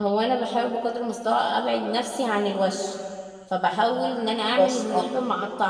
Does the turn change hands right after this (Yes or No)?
No